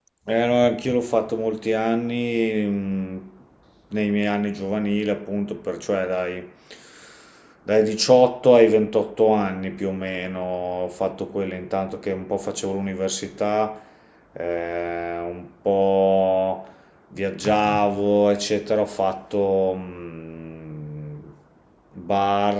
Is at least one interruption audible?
No

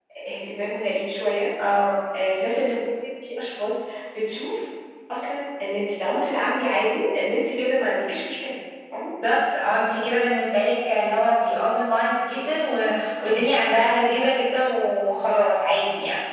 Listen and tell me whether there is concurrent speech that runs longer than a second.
No

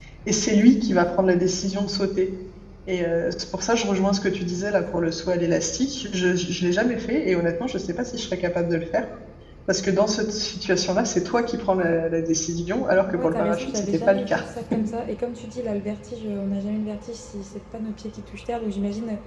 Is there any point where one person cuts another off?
Yes, from 13.1 s

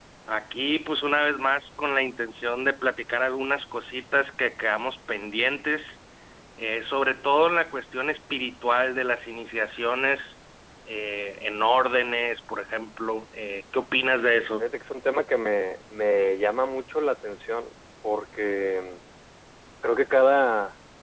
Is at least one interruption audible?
No

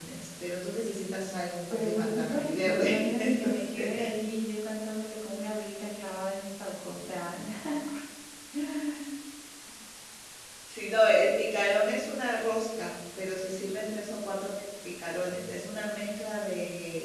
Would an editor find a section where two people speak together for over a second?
Yes, from 1.7 s

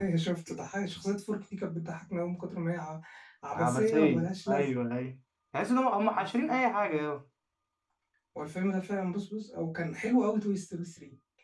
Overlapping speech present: Yes, from 3.5 s

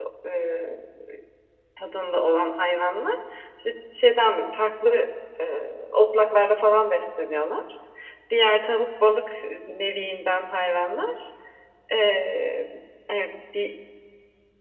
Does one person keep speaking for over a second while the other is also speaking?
No

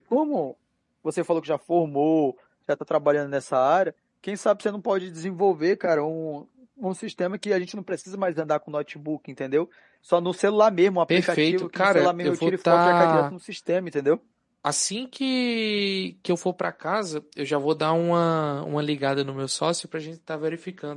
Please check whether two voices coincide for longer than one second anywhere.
Yes, from 11.1 s

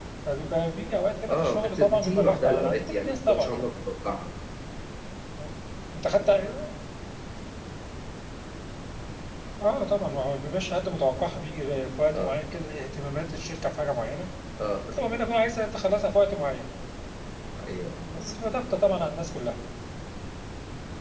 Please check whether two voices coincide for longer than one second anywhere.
Yes, from 1.3 s

